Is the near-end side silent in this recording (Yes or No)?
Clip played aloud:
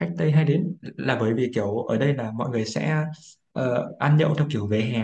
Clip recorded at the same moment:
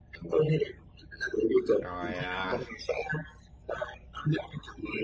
No